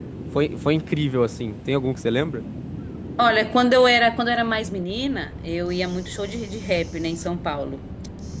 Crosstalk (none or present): none